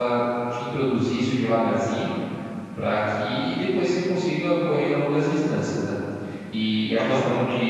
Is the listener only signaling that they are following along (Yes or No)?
Yes